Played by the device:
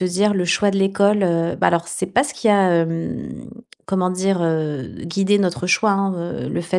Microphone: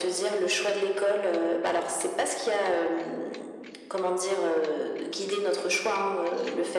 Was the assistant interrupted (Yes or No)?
No